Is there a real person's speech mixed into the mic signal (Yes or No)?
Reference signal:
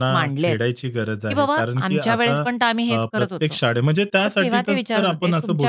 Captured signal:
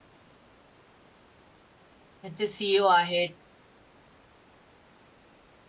Yes